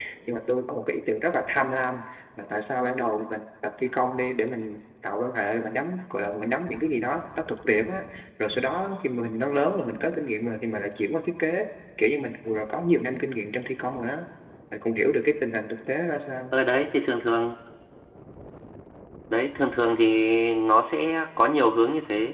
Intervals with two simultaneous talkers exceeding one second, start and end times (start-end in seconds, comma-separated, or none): none